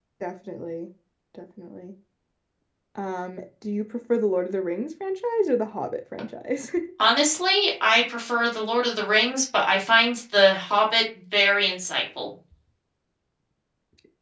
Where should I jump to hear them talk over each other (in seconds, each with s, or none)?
none